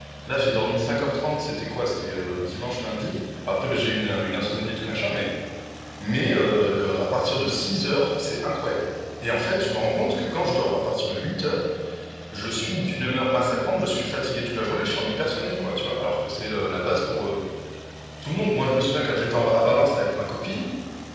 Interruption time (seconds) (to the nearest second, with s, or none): none